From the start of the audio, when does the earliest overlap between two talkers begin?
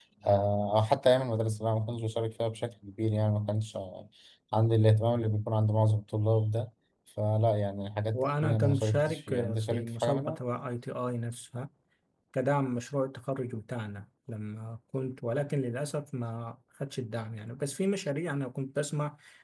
8.1 s

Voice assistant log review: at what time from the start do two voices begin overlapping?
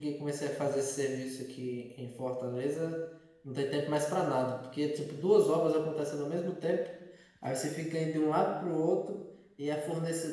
none

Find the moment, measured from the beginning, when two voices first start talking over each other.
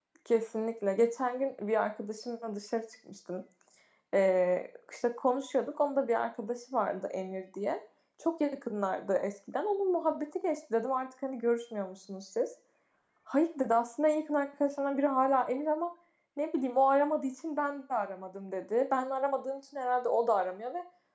none

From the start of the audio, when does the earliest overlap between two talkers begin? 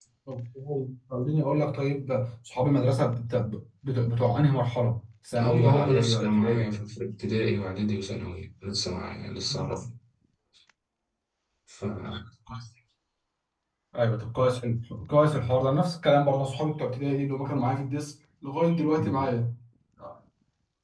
5.4 s

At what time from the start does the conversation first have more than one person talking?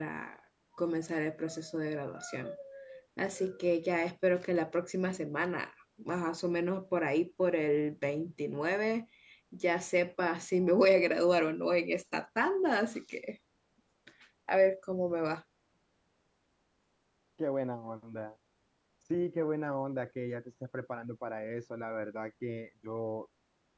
none

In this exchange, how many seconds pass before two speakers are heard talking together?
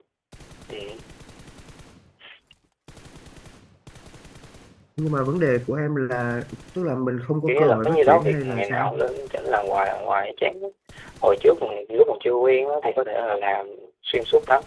7.5 s

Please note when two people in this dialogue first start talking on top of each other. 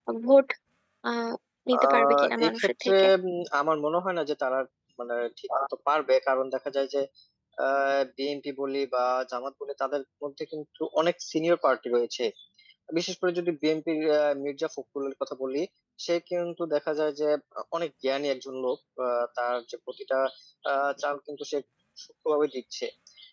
1.8 s

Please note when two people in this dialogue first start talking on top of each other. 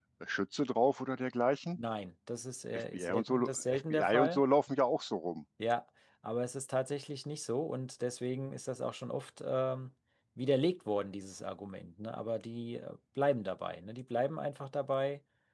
2.7 s

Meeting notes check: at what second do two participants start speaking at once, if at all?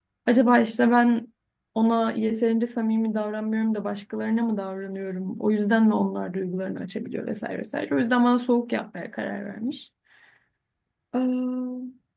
none

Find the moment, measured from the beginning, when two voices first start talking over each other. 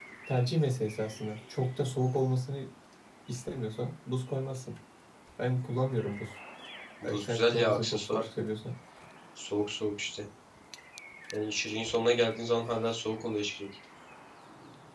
7.0 s

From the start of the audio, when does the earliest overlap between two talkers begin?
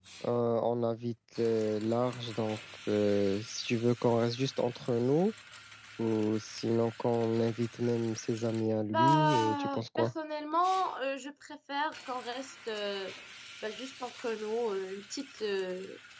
8.9 s

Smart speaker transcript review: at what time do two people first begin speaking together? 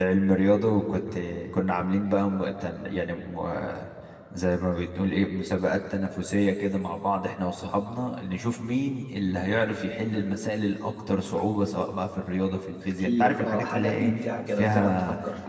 12.8 s

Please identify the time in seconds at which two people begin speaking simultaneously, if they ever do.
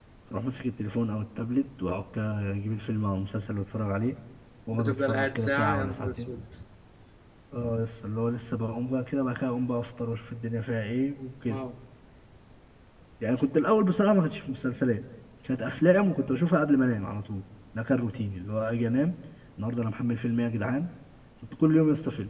4.7 s

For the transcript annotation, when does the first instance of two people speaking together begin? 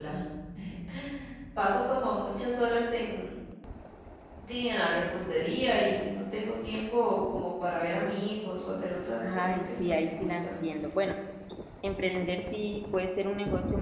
9.2 s

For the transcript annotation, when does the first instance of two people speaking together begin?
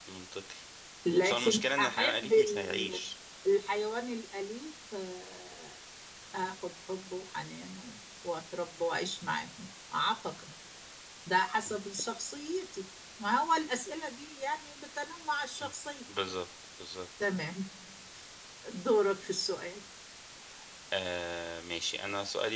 1.2 s

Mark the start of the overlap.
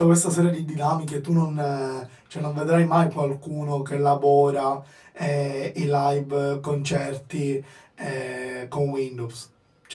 none

